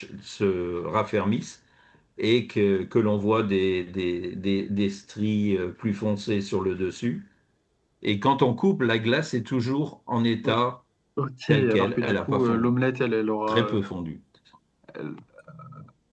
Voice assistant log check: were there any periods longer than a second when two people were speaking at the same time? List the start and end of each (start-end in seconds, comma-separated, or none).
11.5-12.7